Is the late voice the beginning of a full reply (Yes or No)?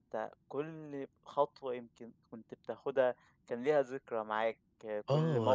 Yes